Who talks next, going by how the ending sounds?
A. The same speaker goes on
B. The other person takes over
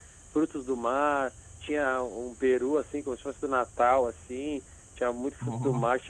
A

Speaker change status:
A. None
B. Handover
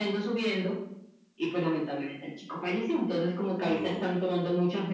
A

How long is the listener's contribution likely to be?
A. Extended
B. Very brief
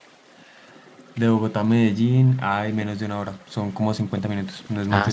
A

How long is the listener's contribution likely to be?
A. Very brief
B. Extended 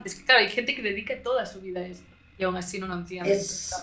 B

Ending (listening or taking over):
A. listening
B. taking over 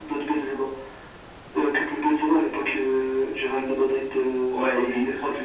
B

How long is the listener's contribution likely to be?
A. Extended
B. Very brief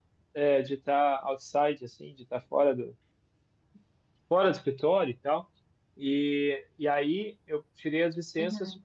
B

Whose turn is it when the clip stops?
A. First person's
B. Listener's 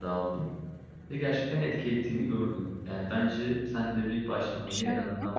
B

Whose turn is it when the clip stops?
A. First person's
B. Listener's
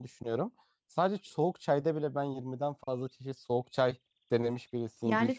B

